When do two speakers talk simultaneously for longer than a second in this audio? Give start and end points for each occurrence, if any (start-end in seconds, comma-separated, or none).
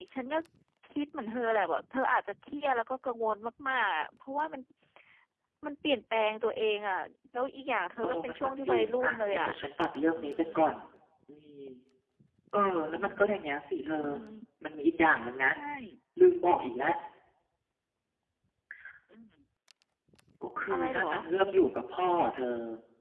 8.0-9.5